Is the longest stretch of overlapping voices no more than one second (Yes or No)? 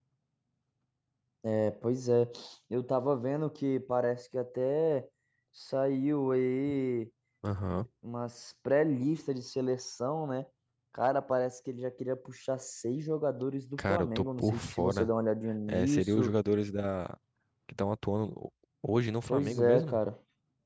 No